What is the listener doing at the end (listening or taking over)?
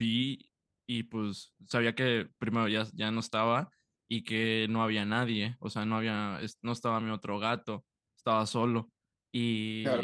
taking over